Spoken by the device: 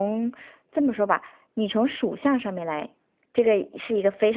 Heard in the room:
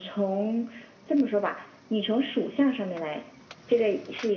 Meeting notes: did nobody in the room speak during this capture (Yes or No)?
Yes